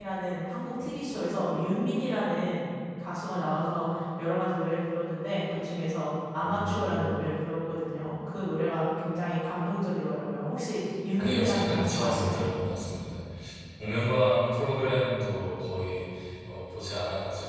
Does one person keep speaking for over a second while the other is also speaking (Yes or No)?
Yes